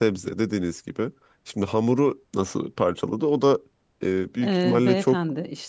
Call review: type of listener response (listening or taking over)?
taking over